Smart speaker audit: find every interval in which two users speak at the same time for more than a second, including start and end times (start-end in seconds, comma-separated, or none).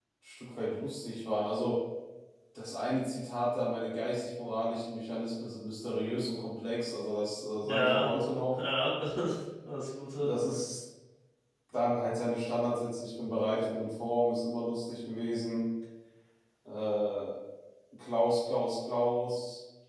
none